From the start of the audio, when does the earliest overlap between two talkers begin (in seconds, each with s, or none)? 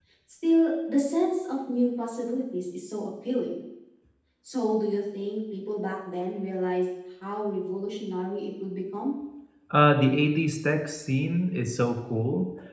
none